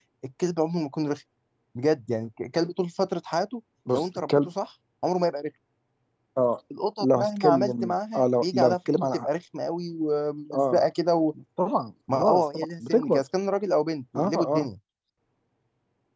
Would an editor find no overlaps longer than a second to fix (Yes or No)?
No